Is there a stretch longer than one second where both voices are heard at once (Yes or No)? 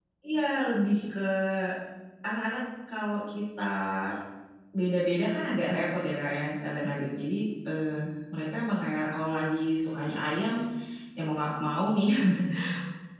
No